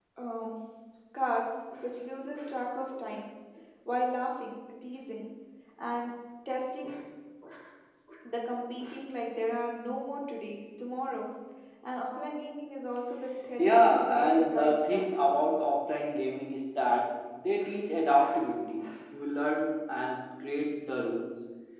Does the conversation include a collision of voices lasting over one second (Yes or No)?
Yes